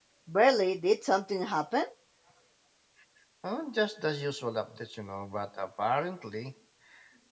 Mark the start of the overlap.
none

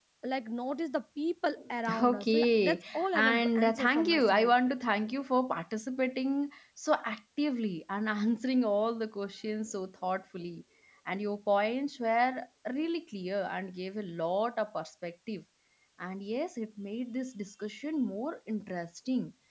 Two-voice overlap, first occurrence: 2.0 s

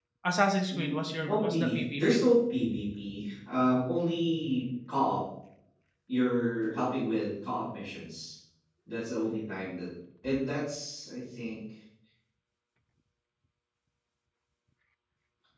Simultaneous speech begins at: 0.7 s

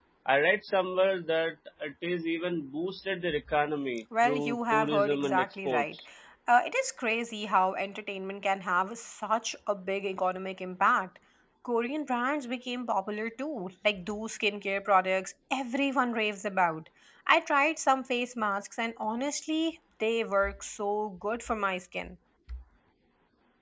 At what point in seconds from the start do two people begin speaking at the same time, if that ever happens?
4.2 s

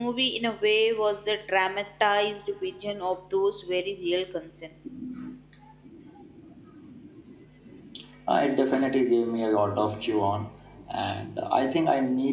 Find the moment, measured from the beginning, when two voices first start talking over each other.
none

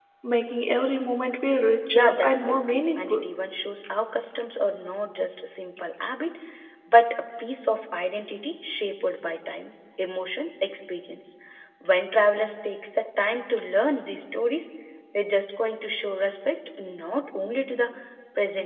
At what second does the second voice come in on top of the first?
1.9 s

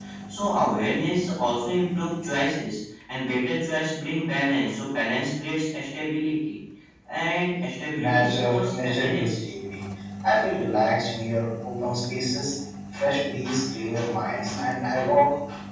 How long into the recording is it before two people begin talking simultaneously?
8.0 s

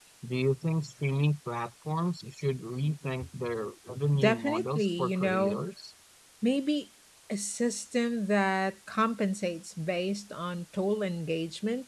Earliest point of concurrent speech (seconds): 4.1 s

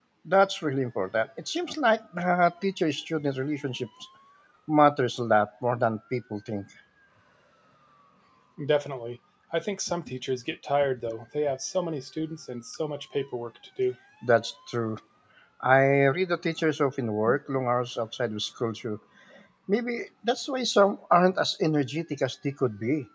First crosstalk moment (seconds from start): none

